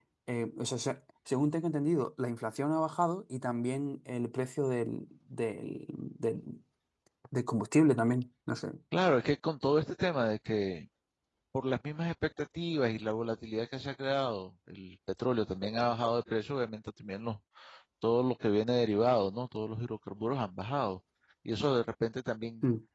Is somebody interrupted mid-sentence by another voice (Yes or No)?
No